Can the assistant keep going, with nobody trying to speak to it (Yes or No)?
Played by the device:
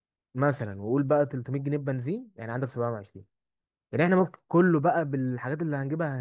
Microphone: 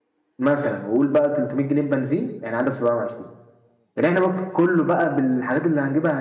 Yes